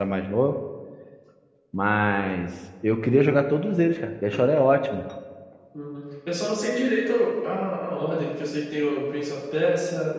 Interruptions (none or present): none